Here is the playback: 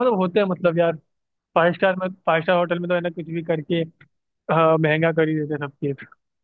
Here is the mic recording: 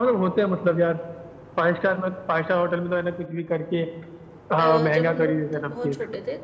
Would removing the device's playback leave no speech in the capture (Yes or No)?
No